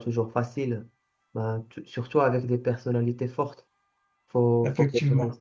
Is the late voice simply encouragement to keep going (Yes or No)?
Yes